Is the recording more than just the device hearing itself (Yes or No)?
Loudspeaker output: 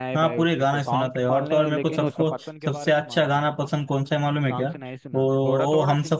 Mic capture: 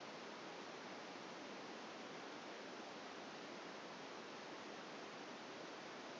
No